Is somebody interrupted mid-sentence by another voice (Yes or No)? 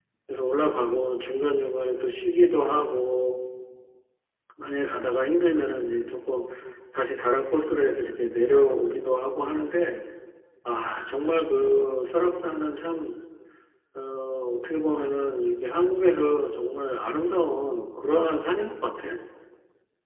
No